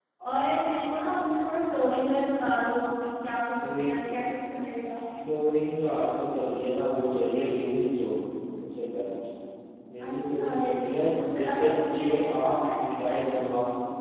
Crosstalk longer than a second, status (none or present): present